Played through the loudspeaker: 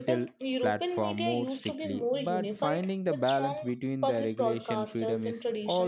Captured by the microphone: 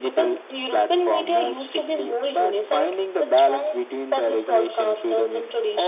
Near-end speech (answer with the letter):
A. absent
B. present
A